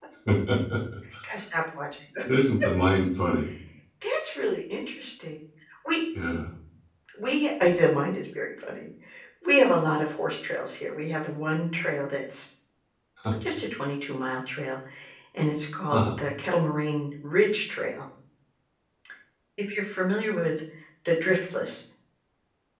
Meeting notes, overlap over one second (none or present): none